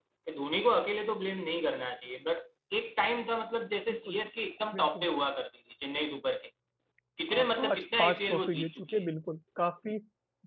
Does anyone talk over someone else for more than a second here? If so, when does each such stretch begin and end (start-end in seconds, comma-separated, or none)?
7.3-9.0